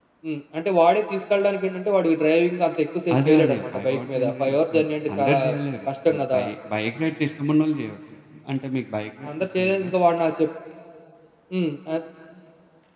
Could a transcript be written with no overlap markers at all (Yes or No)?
No